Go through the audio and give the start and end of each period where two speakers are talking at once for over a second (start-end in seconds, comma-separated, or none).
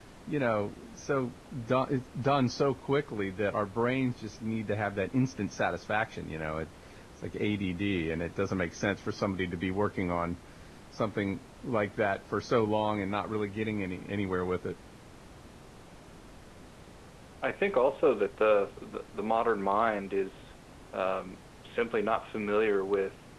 none